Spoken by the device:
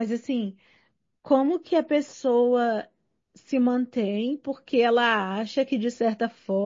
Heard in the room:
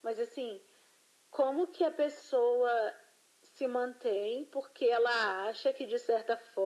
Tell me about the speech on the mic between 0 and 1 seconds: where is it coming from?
echo only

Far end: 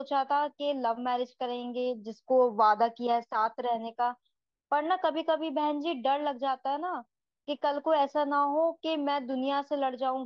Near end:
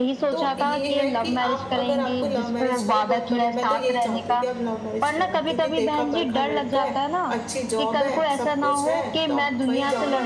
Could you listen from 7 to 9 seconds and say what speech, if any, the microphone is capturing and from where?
both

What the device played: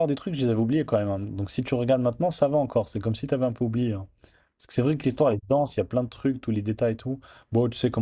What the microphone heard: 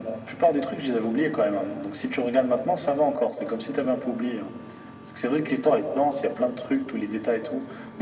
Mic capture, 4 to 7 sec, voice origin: echo only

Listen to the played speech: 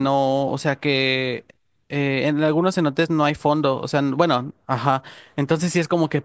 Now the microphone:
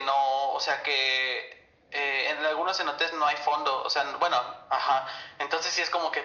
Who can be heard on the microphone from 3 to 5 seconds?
echo only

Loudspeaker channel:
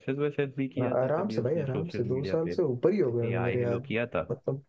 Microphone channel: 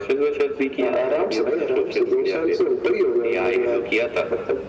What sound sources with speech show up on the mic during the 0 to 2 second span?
echo only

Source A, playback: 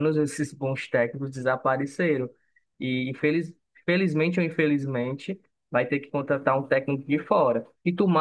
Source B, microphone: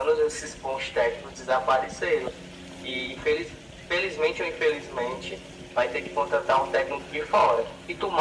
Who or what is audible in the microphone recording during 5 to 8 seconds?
echo only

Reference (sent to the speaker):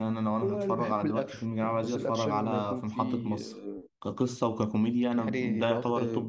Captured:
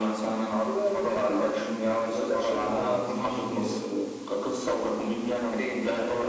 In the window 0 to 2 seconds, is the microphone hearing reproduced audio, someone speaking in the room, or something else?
echo only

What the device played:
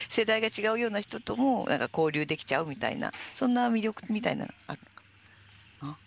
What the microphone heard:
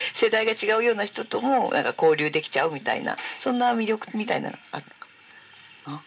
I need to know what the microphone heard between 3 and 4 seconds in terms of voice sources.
echo only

